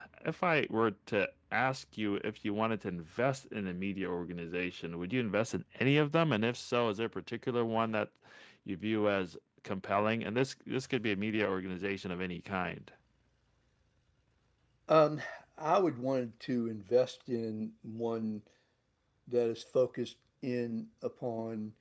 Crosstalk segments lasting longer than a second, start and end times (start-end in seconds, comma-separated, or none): none